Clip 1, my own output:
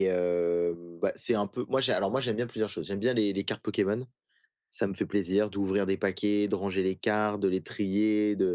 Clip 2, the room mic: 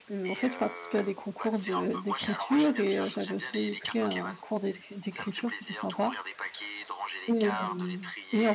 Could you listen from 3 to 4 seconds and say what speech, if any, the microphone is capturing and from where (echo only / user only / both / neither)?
both